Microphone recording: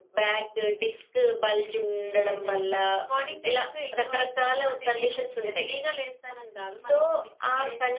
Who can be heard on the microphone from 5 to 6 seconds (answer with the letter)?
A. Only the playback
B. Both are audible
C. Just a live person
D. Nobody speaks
B